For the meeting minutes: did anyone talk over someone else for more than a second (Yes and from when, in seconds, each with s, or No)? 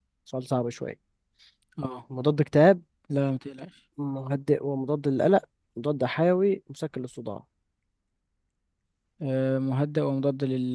No